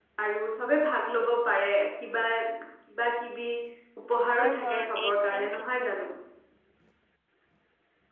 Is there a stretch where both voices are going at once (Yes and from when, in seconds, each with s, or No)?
Yes, from 4.3 s